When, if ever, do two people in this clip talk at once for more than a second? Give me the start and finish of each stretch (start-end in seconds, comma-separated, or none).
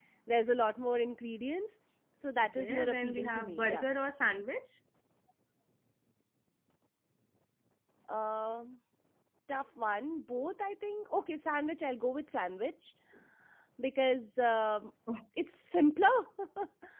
2.4-3.8